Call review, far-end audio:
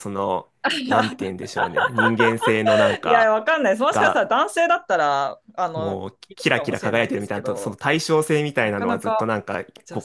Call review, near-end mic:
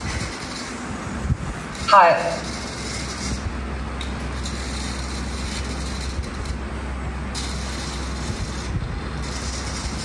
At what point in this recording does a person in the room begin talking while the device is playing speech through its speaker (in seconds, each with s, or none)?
1.9 s